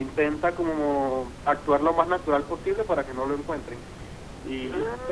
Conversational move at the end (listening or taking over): listening